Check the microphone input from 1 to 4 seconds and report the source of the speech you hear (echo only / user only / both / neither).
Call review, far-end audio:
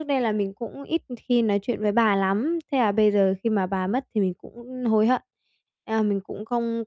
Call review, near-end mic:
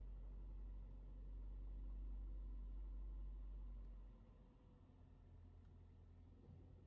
neither